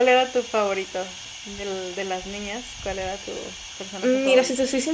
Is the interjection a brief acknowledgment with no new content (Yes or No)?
No